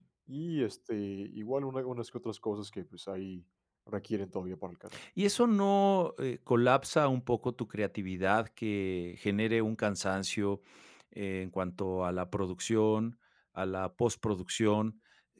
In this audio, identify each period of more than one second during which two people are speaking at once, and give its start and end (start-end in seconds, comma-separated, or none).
none